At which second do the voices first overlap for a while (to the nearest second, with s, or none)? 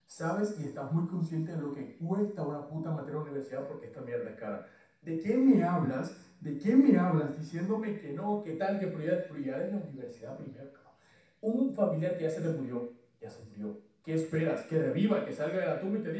none